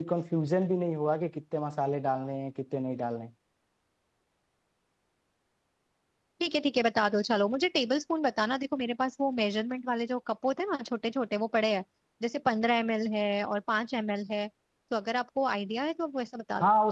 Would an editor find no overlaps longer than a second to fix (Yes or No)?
Yes